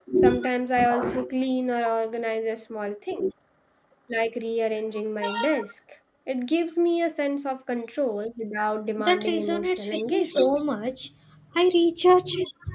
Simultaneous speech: Yes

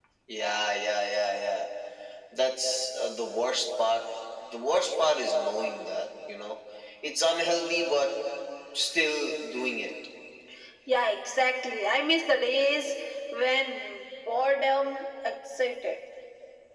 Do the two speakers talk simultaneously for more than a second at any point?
No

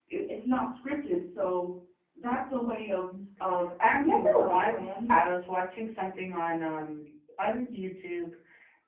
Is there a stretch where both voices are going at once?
Yes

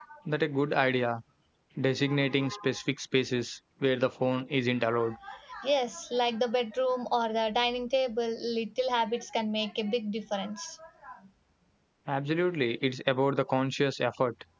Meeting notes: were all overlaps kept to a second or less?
Yes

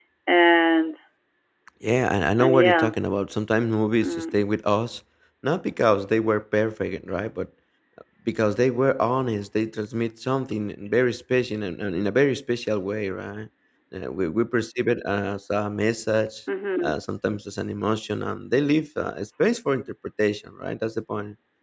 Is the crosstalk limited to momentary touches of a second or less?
Yes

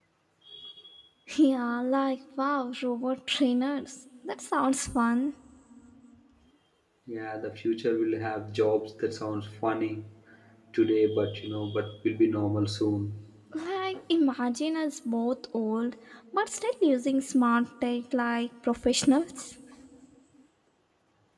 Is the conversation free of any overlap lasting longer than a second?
Yes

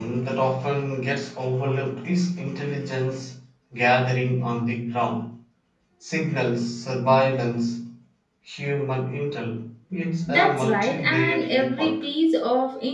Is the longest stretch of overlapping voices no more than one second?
No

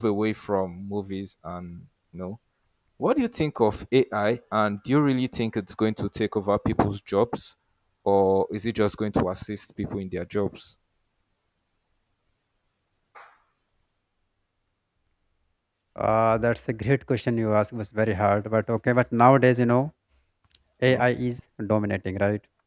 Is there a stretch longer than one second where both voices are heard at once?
No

